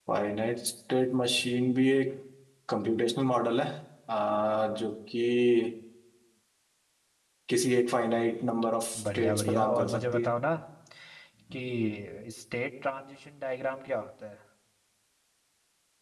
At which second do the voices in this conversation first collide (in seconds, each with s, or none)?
8.9 s